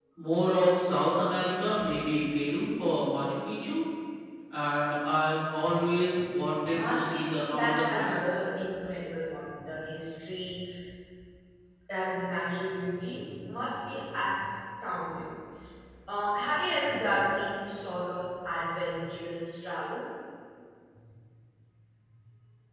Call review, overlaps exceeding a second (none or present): present